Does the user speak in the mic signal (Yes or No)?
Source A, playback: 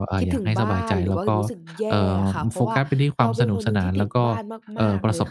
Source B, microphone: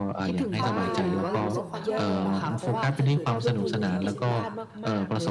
Yes